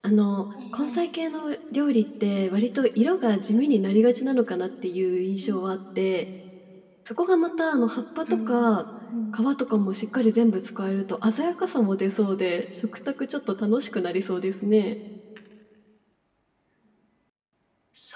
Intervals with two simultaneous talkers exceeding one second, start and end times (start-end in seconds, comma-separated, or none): none